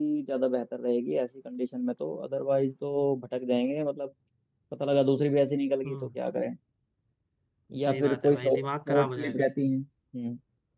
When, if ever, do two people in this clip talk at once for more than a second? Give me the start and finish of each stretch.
7.8-9.5

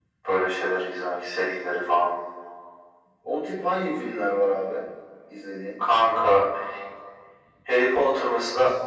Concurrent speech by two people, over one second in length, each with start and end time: none

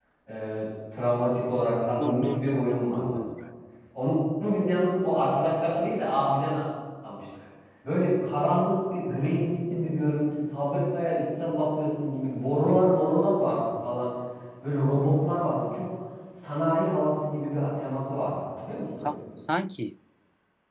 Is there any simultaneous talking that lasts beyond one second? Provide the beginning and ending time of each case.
2.0-3.2

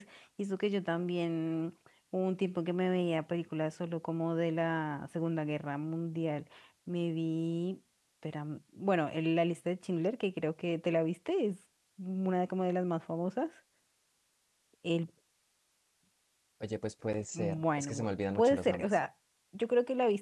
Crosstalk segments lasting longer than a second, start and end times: 17.3-19.0

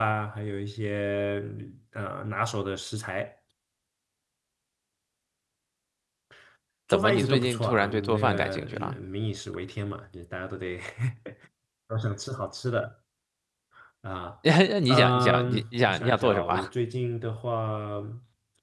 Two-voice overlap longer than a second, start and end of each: 6.9-9.0, 14.9-16.7

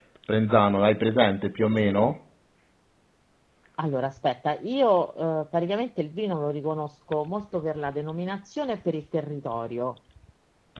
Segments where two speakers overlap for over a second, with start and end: none

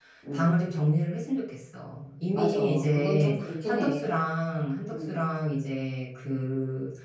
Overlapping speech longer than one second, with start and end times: 2.3-4.1

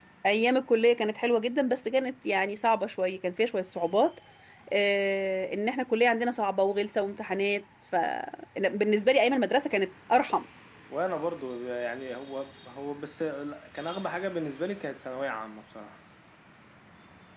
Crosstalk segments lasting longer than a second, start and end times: none

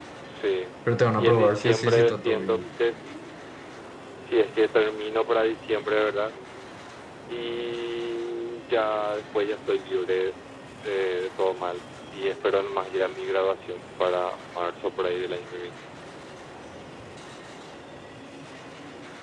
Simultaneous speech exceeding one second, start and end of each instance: 1.2-2.6

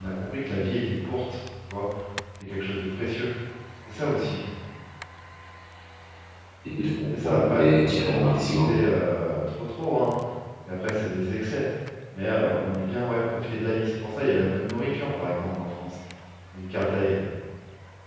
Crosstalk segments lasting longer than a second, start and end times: 7.1-8.7

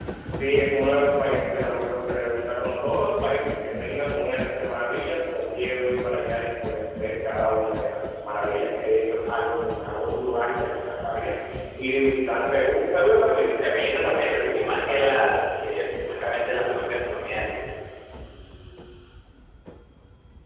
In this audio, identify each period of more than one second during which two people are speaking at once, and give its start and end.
13.6-15.1

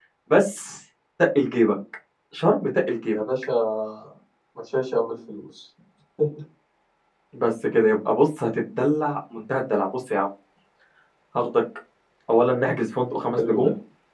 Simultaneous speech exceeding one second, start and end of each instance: none

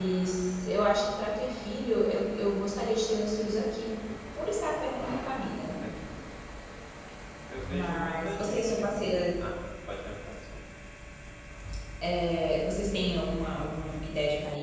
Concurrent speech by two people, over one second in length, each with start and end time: 7.7-9.3

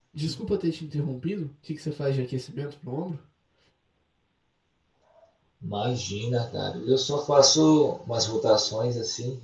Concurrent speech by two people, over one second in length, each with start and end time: none

